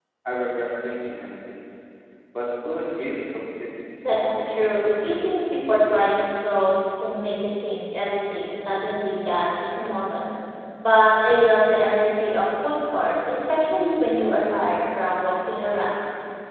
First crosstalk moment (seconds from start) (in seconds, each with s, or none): 4.0 s